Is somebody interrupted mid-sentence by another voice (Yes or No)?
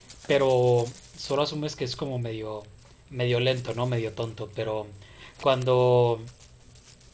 No